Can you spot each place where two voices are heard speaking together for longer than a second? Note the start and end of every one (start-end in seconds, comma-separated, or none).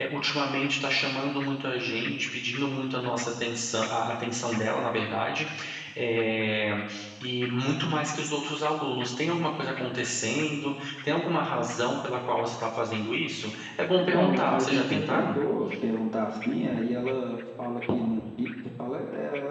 14.0-15.4